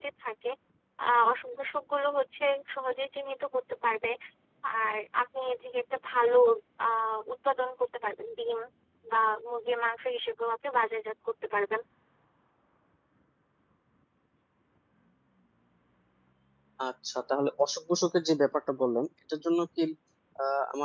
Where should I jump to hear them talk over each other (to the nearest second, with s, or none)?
none